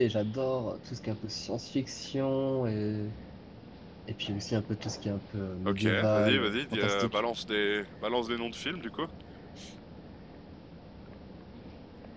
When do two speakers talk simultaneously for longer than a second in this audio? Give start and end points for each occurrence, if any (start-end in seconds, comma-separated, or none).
5.7-7.2